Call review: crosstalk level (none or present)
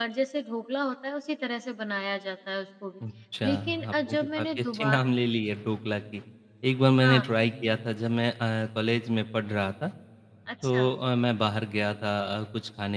present